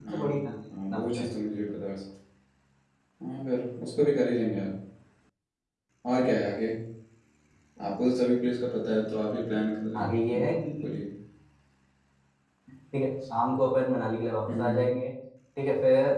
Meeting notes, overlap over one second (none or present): none